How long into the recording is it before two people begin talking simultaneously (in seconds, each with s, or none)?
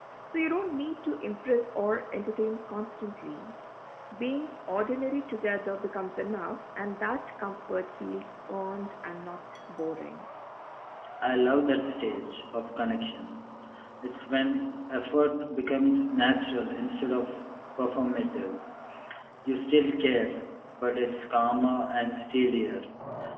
none